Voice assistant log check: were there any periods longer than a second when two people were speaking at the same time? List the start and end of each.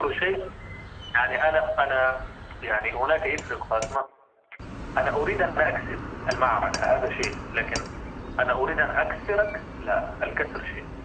none

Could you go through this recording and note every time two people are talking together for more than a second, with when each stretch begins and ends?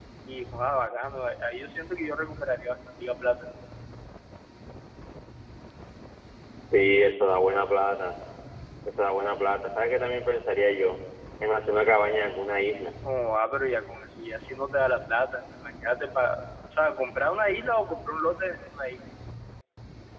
none

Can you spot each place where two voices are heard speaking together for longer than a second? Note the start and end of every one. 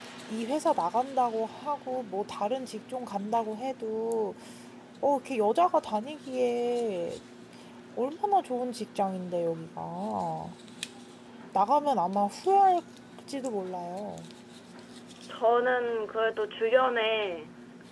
none

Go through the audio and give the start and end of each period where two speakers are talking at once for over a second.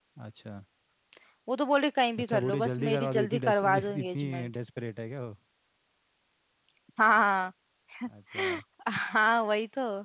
2.2-4.5

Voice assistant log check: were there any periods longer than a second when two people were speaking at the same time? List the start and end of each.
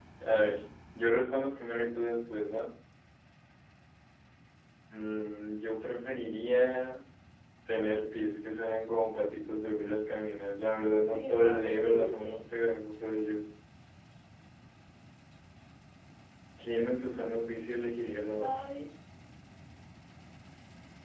11.1-12.4

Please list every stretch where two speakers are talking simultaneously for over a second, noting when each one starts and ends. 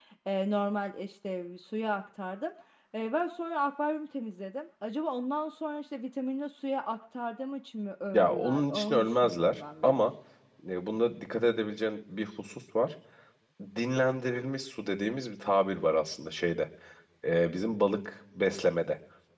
8.1-9.9

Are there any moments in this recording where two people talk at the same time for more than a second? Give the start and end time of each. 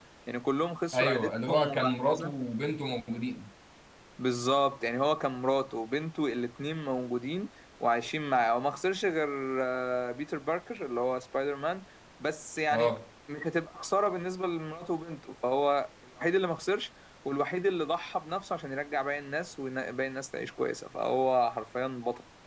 0.9-2.3

